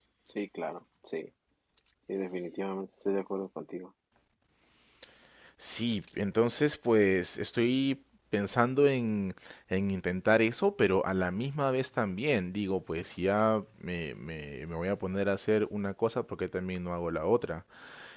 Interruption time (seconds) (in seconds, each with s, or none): none